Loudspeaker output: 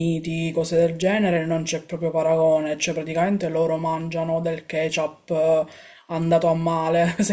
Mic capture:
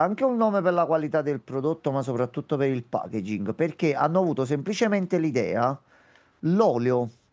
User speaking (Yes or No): Yes